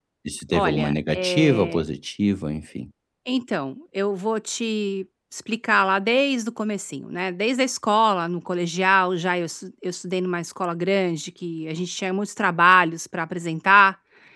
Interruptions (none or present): present